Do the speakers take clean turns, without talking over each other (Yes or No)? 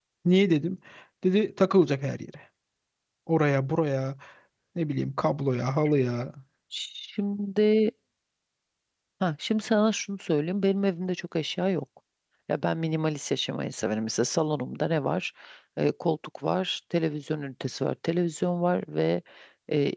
Yes